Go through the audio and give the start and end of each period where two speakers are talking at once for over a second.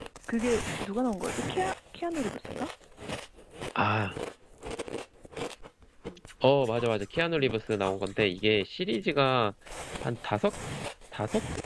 none

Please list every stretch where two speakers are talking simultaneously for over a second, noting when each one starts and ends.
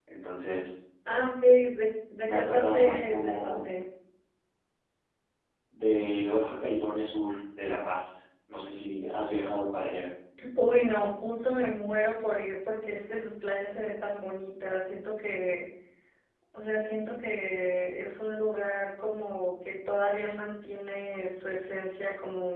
2.3-3.6

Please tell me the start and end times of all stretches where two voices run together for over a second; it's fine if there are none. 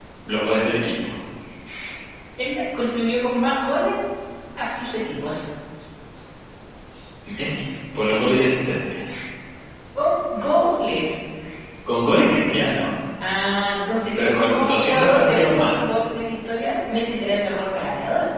14.2-15.8

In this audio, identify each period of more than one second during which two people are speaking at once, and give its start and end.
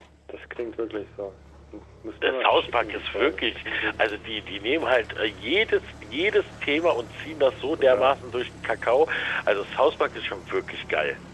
2.2-4.2

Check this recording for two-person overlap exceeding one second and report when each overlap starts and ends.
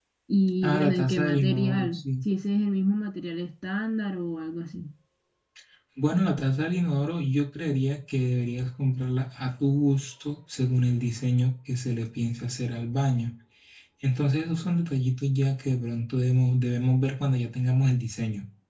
0.6-2.0

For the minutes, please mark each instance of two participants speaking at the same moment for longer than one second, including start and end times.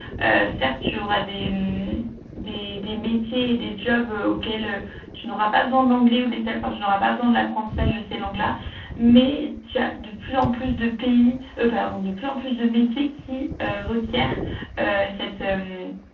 none

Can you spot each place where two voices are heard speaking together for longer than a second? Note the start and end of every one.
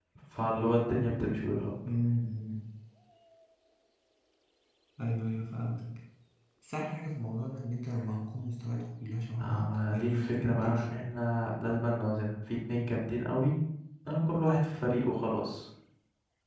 9.4-11.1

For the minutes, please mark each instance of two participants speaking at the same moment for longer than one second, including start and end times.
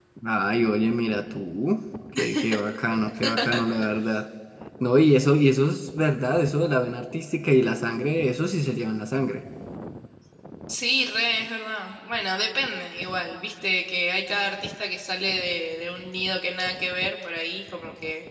none

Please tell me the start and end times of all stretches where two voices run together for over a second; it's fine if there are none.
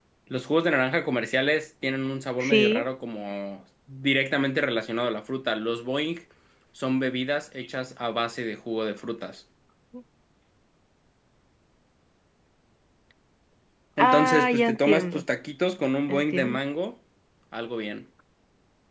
14.0-15.2

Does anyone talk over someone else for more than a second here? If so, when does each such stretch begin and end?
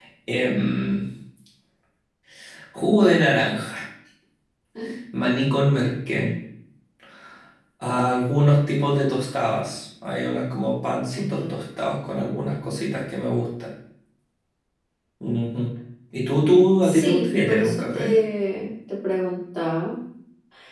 16.8-18.1

